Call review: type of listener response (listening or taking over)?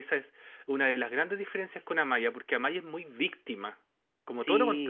taking over